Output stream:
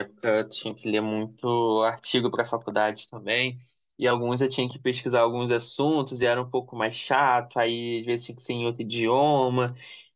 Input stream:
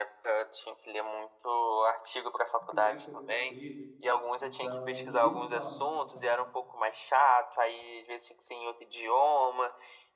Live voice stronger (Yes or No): No